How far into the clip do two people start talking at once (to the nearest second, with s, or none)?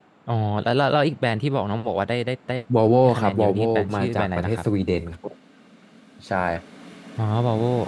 3 s